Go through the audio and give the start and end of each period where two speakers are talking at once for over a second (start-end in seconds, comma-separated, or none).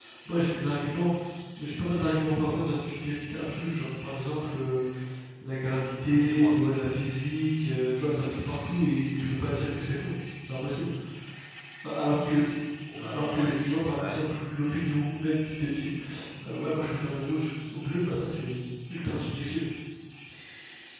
13.0-14.2